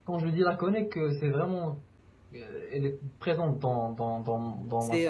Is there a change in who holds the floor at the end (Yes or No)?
Yes